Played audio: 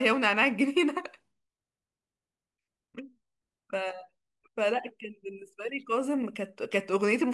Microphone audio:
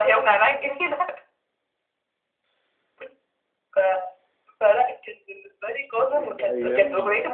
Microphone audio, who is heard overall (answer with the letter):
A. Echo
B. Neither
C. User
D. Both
D